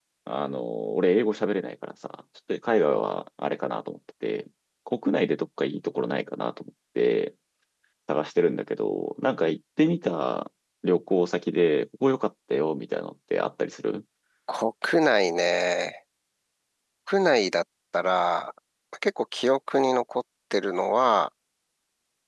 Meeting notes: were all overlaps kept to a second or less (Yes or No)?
Yes